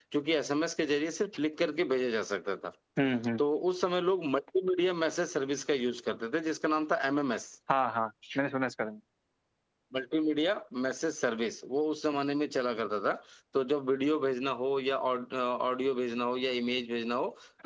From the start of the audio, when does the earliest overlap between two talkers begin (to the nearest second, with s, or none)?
none